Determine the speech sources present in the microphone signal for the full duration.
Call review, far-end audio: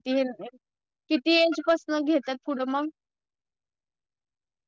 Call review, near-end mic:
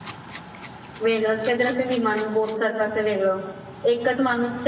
user only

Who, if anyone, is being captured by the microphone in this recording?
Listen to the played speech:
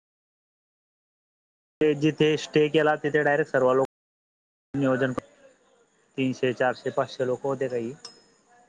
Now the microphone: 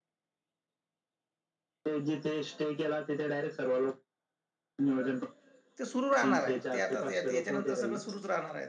both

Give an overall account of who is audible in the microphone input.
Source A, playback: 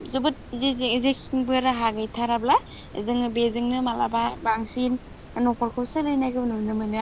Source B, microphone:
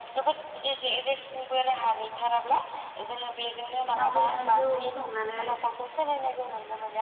both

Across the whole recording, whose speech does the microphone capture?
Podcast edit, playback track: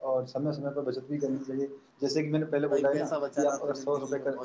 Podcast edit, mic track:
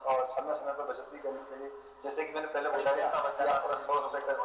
echo only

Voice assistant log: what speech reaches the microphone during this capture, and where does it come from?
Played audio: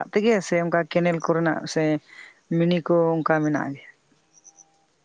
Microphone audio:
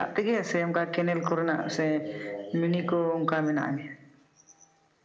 both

